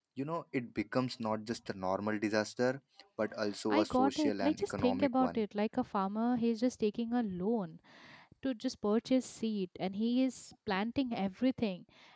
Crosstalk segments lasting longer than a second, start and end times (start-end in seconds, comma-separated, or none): 3.7-5.4